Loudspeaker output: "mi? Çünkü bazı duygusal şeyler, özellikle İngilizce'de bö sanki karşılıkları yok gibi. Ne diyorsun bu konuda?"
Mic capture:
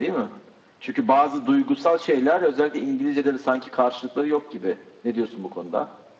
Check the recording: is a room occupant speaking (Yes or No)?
No